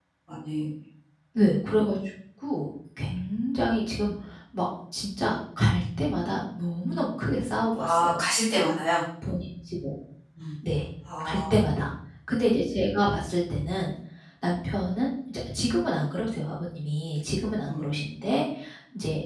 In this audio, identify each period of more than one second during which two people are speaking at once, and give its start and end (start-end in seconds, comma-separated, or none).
none